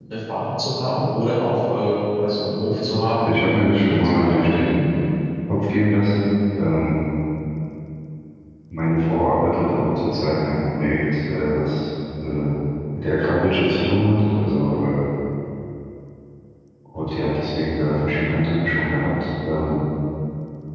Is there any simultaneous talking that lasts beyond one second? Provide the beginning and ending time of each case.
3.2-4.7

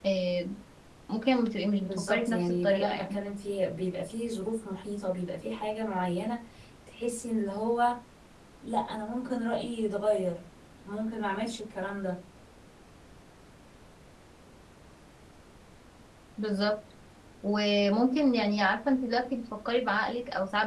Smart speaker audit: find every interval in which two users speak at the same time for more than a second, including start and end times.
1.8-3.2

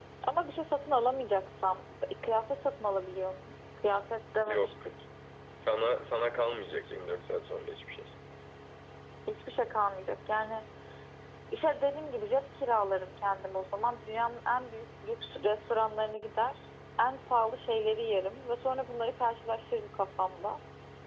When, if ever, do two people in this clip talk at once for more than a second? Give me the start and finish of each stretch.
none

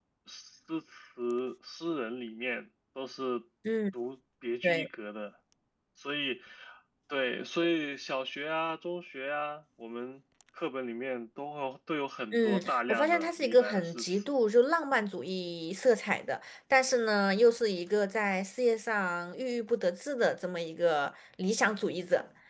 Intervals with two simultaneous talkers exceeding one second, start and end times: 12.3-14.3

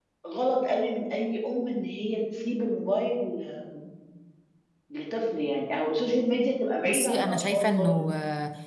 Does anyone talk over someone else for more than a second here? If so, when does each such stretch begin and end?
6.8-8.1

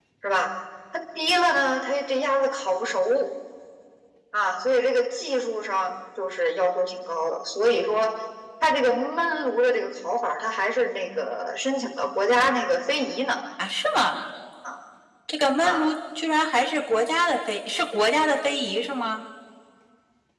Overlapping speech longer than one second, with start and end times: none

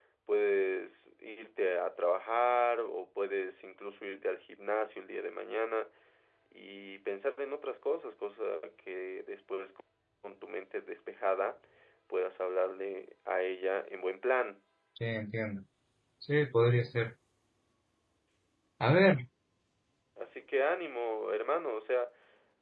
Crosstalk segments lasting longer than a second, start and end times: none

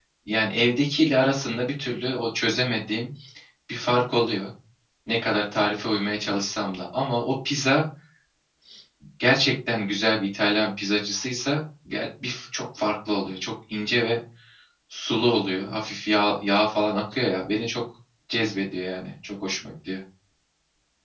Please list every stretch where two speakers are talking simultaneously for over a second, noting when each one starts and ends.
none

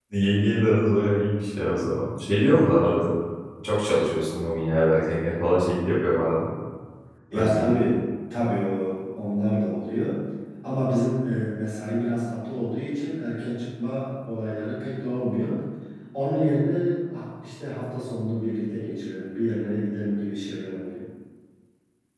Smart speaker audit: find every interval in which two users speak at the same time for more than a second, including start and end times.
none

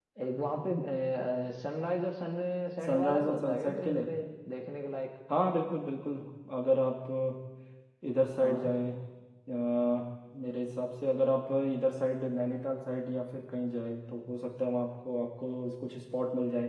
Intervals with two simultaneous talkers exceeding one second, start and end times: 2.9-4.1

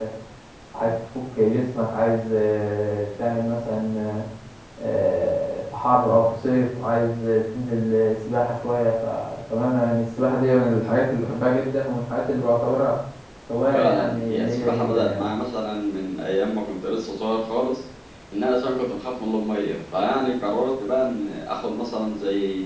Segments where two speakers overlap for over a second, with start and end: 13.7-15.3

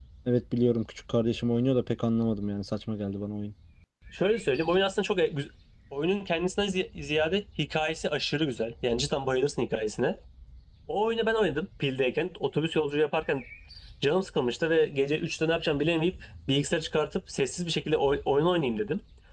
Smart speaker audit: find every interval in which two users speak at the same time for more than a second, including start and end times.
none

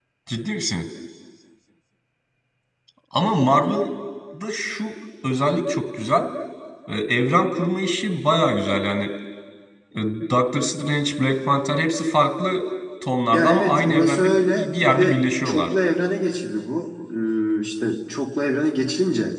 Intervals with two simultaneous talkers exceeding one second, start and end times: 13.3-15.7

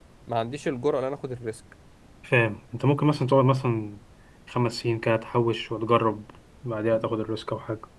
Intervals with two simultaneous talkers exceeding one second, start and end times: none

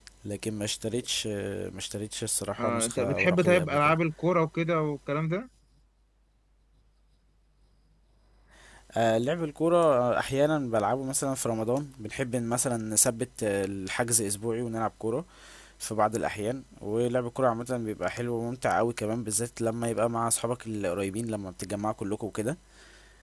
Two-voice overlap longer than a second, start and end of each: 2.6-4.0

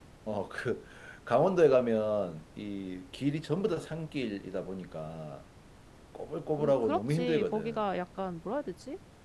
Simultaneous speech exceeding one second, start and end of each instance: 6.6-7.8

